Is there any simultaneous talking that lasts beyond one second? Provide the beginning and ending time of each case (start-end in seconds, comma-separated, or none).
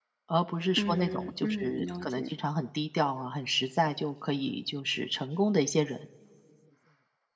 0.8-2.3